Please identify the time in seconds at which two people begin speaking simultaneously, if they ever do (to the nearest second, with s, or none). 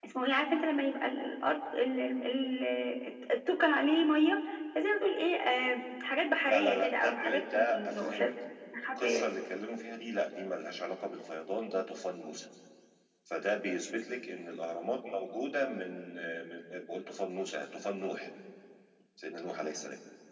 6 s